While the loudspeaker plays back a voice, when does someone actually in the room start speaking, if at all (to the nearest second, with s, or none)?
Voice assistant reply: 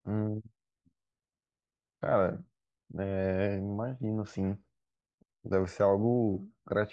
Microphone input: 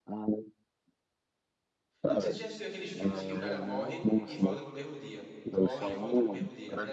2 s